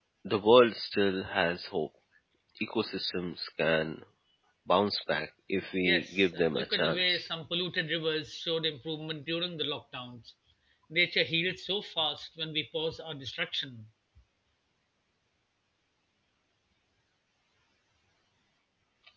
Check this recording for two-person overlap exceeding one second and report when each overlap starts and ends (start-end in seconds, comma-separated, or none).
5.8-7.3